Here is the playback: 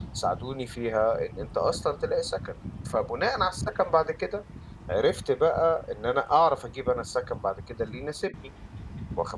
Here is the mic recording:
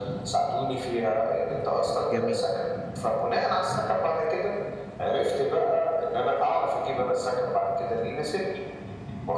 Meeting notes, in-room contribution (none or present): present